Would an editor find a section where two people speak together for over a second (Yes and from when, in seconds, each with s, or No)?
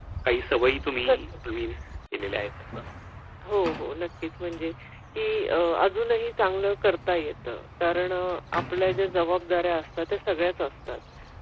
No